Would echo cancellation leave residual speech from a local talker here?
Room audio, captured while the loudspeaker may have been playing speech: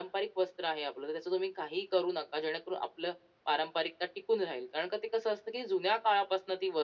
No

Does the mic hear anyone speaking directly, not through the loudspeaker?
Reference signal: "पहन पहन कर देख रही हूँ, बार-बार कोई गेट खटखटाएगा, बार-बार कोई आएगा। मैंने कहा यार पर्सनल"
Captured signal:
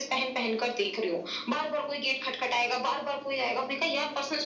No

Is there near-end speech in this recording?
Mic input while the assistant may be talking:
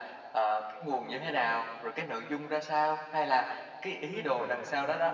Yes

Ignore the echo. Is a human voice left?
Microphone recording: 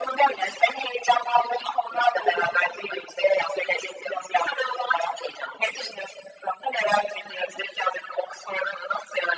No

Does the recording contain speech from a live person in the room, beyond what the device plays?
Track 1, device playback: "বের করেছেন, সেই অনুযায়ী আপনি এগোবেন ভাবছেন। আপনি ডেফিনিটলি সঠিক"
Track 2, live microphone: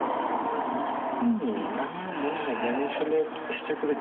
Yes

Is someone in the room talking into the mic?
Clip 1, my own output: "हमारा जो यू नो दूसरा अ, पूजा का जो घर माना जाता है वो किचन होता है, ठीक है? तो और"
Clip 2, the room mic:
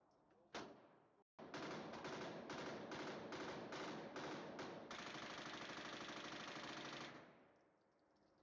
No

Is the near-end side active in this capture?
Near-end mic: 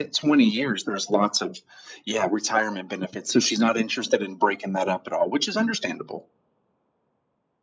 No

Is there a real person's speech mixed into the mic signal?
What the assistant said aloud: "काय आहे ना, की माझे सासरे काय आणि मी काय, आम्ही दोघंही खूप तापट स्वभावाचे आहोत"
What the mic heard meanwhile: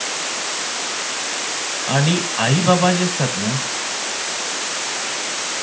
Yes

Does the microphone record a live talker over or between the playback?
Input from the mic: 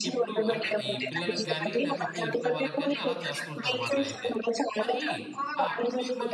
Yes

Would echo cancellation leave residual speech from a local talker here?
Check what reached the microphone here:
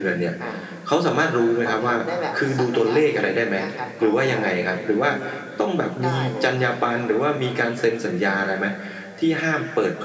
No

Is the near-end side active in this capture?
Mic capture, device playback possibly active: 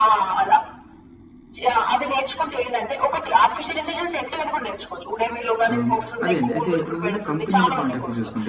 Yes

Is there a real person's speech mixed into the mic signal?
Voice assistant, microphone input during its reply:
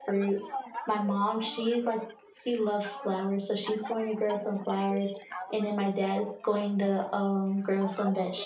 Yes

